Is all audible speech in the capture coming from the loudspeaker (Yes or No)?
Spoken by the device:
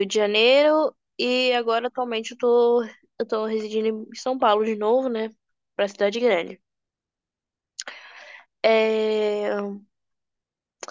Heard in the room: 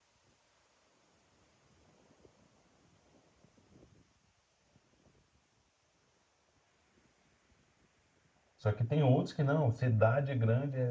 No